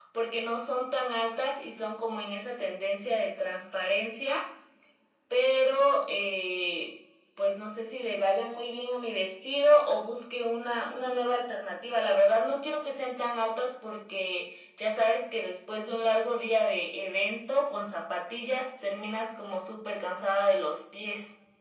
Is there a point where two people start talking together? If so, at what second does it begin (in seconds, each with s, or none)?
none